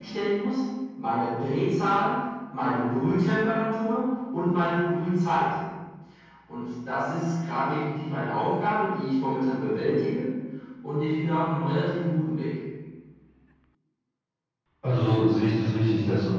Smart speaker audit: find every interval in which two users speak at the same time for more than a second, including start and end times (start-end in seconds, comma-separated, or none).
none